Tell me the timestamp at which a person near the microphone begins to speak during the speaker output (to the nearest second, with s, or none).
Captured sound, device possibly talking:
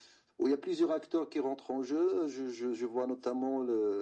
none